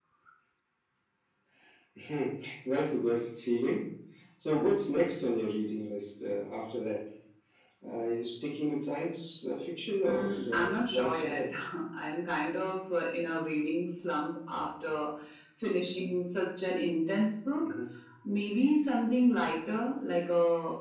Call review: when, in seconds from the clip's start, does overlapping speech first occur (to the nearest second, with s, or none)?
10 s